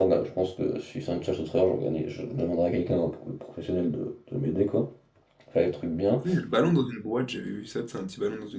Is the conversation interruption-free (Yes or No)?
Yes